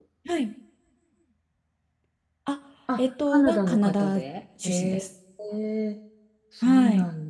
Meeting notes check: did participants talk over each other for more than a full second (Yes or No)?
Yes